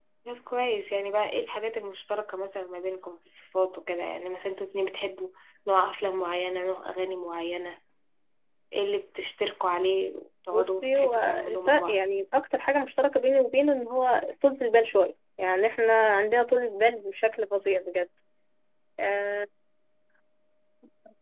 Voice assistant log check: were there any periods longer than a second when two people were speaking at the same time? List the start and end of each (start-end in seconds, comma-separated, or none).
10.5-12.0